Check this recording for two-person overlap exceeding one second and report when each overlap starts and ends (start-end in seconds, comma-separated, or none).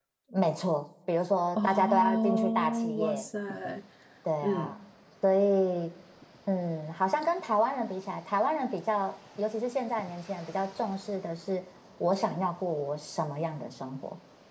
1.6-3.2